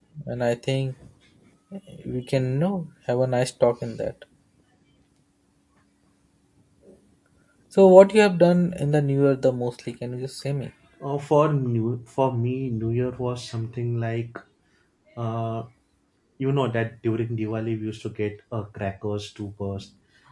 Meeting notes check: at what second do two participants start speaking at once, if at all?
none

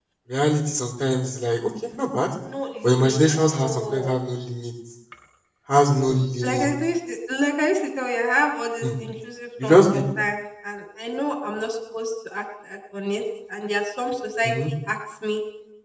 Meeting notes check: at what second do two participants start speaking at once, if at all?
2.8 s

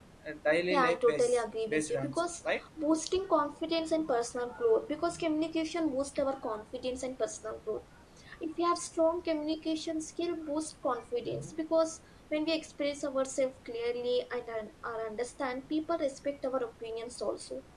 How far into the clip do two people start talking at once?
0.7 s

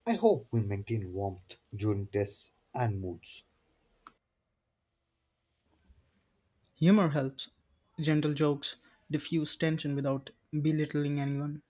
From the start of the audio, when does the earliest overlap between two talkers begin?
none

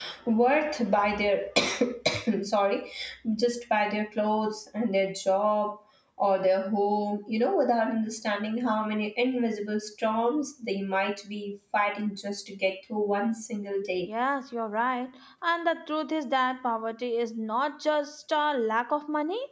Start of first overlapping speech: none

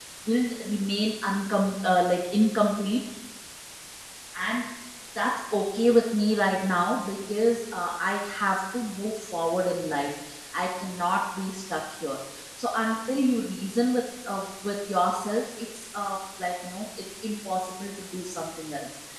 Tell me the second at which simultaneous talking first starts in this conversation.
none

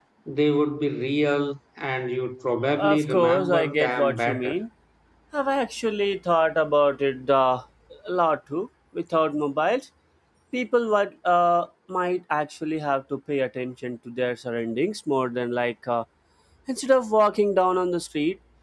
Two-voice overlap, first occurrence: 2.7 s

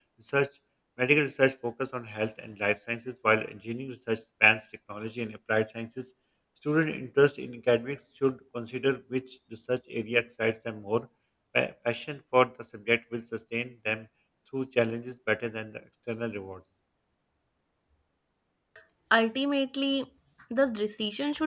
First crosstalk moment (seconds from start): none

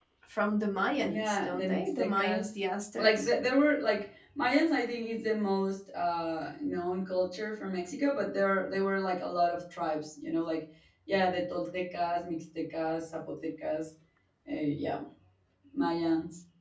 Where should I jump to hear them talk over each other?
0.9 s

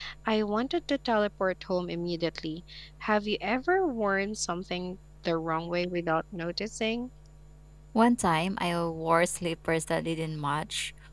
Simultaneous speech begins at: none

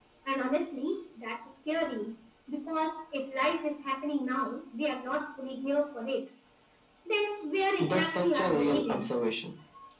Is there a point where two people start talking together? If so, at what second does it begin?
7.8 s

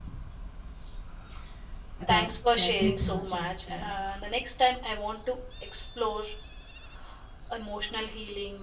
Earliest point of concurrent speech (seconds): 2.1 s

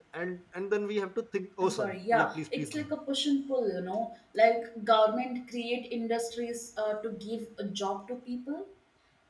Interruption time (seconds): 1.6 s

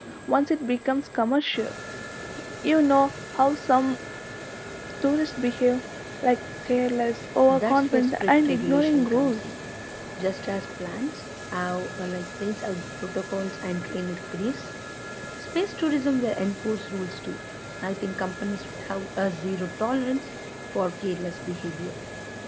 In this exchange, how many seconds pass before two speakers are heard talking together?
7.5 s

